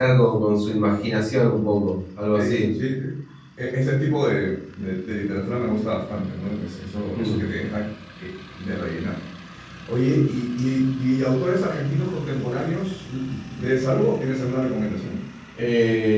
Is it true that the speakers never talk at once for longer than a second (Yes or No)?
Yes